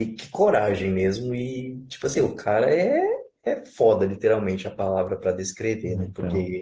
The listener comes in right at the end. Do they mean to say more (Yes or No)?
No